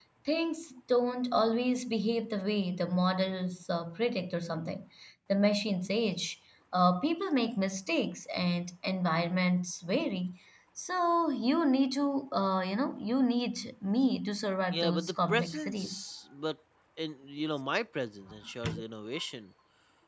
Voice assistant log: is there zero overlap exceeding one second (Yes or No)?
No